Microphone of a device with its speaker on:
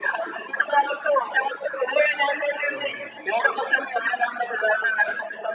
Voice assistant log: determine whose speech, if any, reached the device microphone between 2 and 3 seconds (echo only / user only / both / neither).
both